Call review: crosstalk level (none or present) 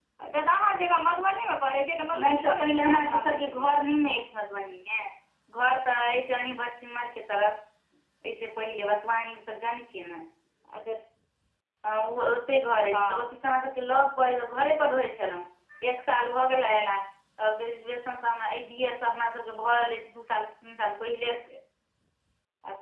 present